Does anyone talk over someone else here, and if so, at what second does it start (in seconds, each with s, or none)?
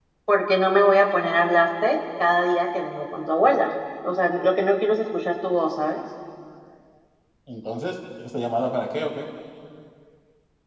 none